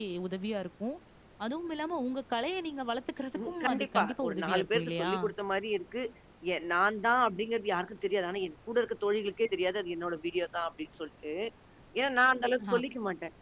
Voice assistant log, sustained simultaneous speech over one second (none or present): present